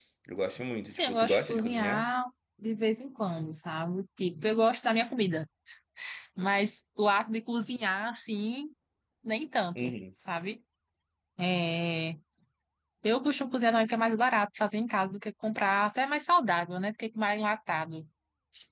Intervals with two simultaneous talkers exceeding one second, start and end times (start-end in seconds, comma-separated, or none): 0.9-2.1